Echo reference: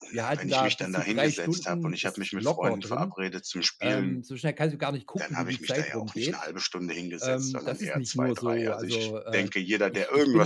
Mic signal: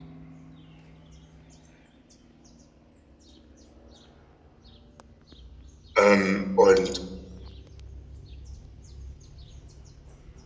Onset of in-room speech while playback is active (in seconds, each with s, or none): 6.0 s